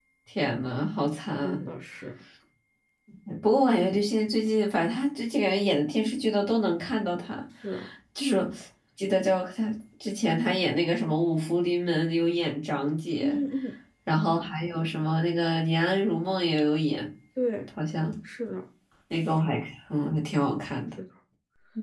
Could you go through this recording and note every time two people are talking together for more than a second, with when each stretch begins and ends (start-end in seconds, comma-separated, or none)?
none